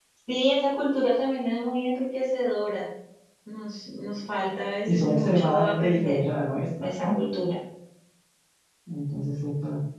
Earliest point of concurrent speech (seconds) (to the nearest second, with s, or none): 5 s